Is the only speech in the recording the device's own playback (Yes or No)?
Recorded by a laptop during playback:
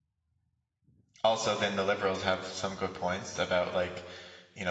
No